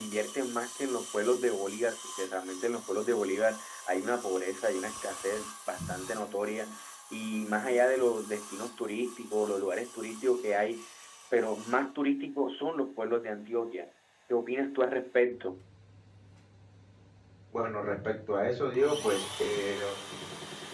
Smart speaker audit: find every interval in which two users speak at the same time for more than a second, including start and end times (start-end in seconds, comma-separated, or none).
none